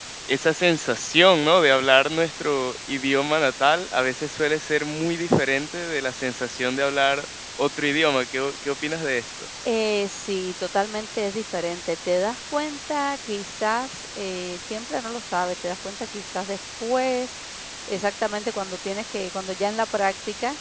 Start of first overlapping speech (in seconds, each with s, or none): none